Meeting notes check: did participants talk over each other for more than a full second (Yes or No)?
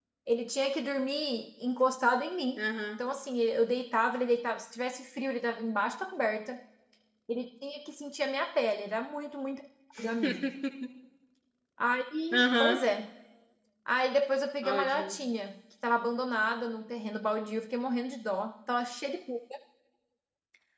No